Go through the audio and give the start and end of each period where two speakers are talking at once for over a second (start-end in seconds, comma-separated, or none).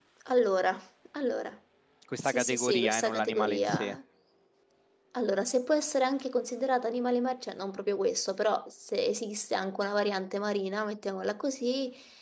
2.2-3.9